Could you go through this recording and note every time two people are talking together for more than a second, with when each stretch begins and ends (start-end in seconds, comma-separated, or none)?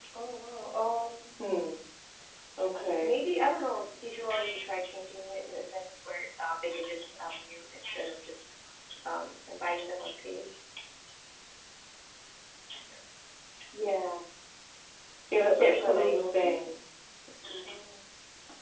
15.3-16.6